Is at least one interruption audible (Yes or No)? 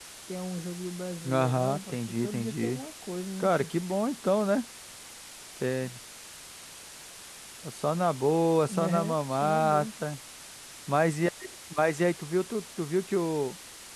Yes